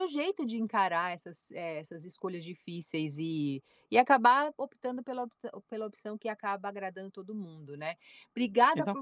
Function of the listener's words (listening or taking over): listening